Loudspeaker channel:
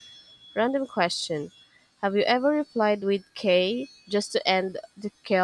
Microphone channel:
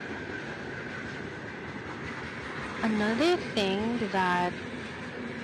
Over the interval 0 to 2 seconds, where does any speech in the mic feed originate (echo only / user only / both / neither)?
neither